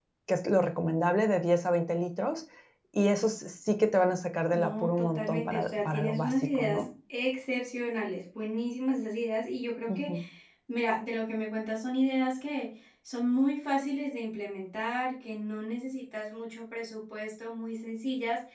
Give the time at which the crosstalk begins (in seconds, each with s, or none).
4.5 s